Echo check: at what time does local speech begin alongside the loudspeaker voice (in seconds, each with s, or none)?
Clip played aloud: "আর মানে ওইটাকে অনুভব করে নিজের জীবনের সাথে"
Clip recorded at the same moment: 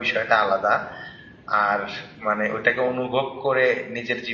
none